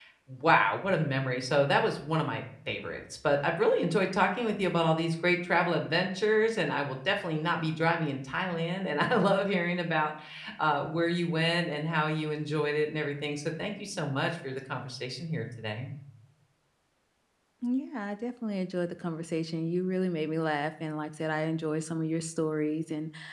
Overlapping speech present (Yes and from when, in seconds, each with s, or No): No